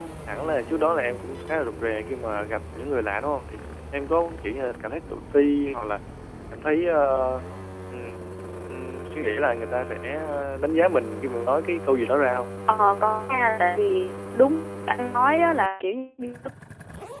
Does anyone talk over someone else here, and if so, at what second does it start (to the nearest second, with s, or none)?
none